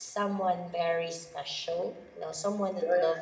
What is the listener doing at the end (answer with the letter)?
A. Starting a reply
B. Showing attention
A